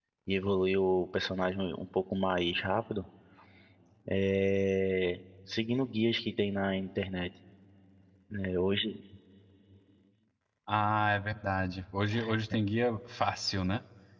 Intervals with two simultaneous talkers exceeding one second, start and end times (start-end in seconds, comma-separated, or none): none